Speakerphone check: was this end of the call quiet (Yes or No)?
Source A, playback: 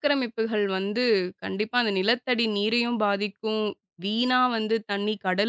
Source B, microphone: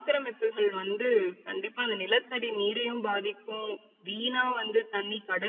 Yes